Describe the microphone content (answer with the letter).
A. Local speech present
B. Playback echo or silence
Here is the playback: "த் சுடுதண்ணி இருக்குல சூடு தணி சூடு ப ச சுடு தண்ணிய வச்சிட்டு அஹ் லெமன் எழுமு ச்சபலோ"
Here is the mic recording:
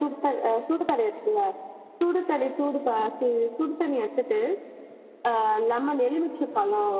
B